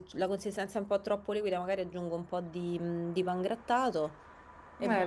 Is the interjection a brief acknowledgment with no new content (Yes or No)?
Yes